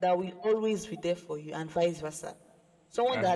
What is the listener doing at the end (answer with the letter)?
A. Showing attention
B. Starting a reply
A